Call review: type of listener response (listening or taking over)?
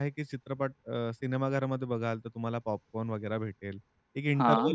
listening